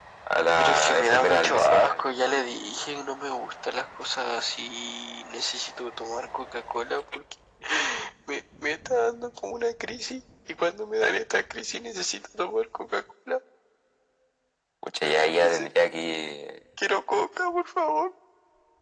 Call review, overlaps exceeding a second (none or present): present